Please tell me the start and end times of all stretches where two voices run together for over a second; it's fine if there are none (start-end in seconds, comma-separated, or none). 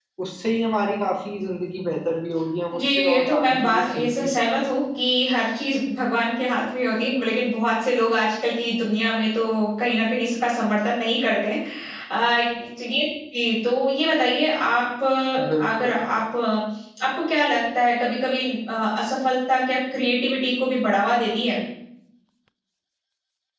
2.7-4.5